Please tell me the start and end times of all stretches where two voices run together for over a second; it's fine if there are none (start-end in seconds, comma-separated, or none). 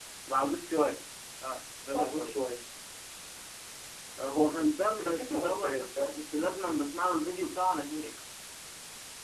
4.8-6.2